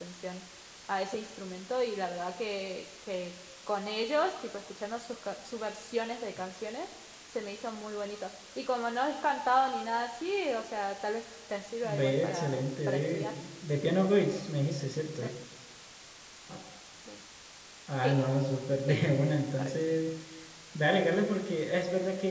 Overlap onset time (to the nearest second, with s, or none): 12 s